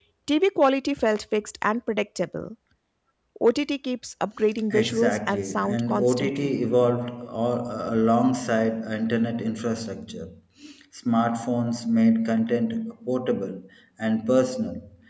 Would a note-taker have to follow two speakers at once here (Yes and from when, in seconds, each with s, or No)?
Yes, from 4.7 s